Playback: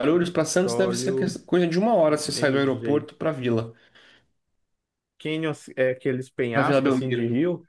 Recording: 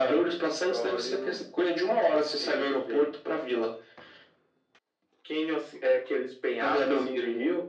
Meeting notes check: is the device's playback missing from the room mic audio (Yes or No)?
No